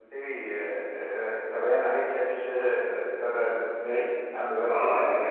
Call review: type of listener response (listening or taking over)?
taking over